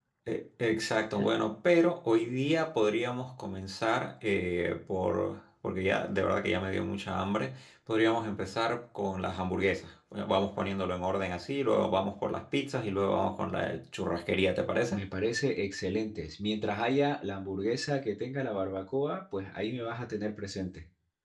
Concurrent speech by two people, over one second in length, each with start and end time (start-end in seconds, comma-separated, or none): none